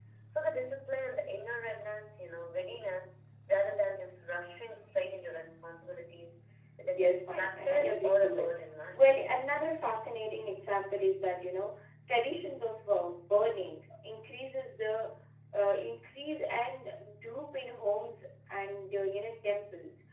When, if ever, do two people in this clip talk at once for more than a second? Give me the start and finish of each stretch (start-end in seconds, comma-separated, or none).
6.9-8.5